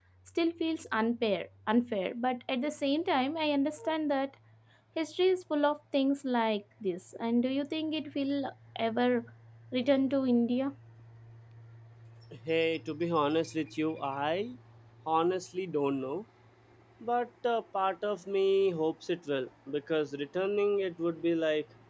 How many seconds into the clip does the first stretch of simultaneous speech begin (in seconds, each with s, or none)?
none